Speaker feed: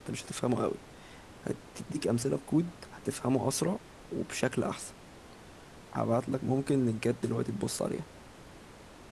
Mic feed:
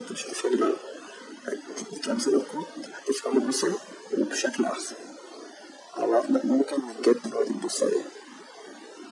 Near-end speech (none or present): none